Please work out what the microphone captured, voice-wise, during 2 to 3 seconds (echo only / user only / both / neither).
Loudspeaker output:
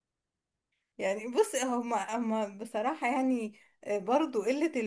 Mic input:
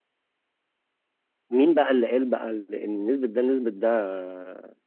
user only